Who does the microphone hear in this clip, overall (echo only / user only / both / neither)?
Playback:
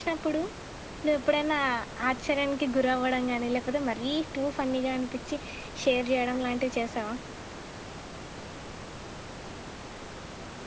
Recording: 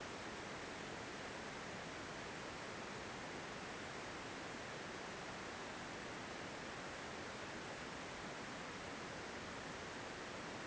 neither